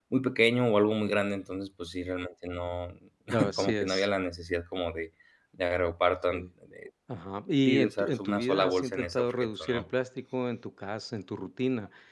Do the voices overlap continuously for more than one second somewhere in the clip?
Yes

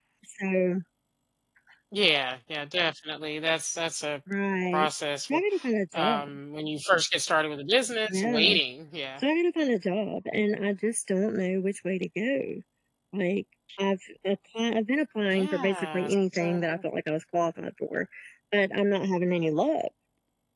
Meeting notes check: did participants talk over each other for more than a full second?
Yes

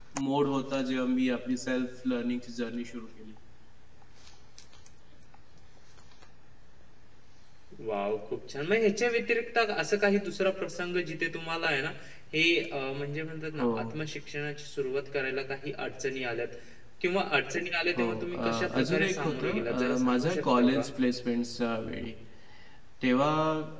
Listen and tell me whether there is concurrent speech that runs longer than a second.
Yes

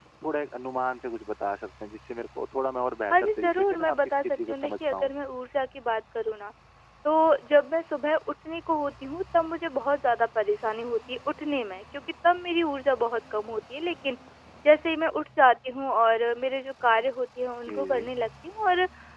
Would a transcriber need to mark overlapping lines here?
Yes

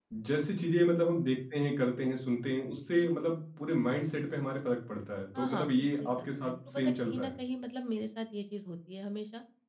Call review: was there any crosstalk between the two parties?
Yes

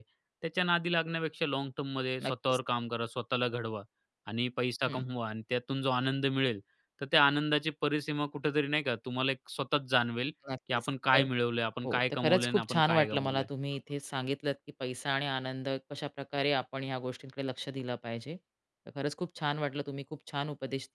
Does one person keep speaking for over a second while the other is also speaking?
Yes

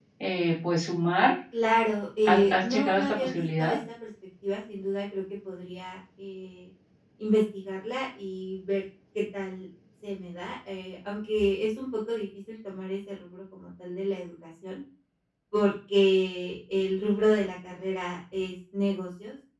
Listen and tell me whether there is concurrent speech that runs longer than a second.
Yes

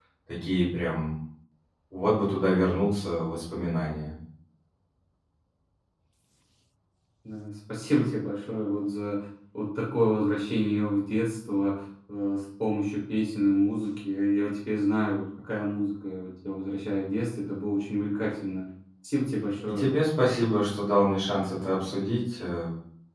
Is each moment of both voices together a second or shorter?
Yes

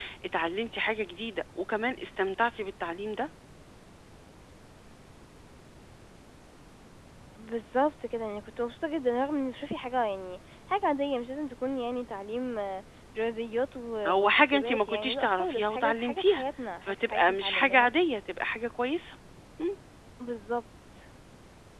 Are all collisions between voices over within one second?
No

